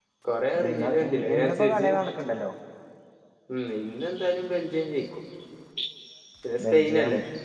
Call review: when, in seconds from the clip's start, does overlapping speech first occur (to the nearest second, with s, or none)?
1 s